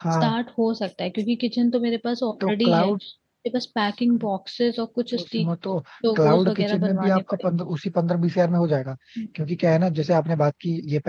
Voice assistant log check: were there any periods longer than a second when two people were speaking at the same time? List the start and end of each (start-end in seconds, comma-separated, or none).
6.2-7.4